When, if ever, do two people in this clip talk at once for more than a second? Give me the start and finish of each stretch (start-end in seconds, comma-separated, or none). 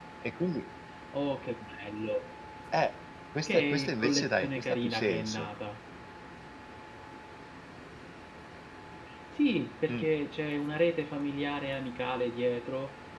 3.5-5.5